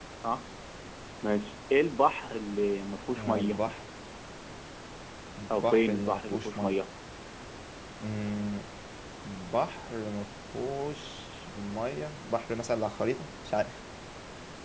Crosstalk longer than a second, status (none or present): present